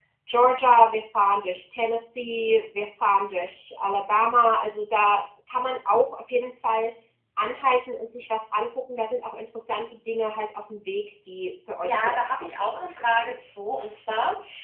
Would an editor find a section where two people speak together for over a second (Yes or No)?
Yes